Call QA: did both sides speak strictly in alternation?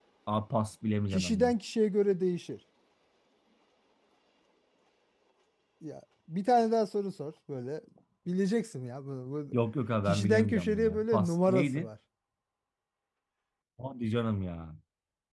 No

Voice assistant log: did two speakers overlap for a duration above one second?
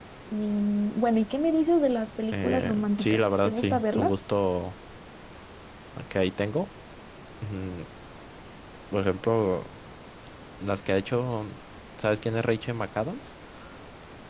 Yes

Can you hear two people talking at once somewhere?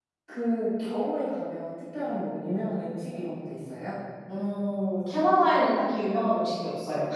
No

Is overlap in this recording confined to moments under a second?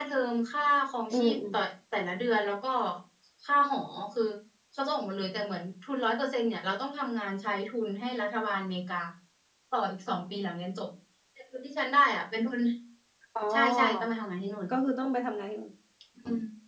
Yes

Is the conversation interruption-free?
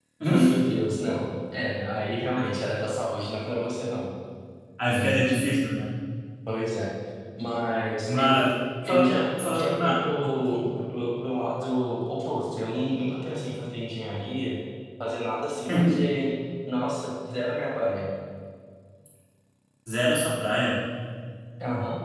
No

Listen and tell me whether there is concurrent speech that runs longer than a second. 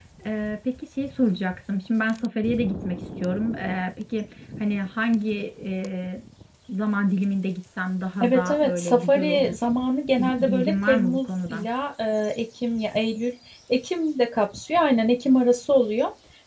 Yes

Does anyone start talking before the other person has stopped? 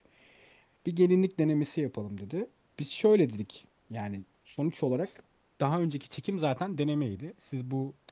No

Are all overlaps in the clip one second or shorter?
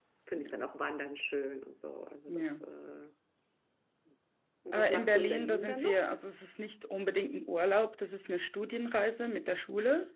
No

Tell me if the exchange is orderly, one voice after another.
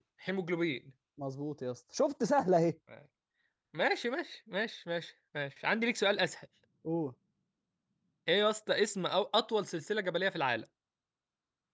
Yes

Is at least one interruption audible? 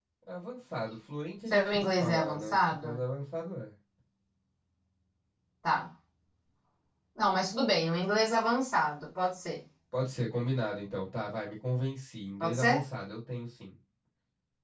Yes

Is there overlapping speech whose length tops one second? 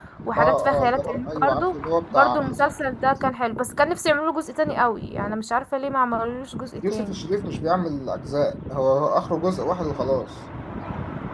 Yes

